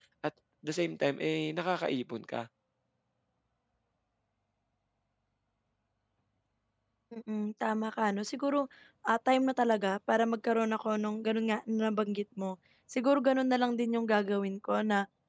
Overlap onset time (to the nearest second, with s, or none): none